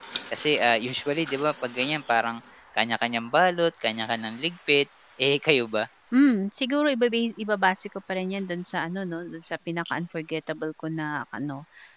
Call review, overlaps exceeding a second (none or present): none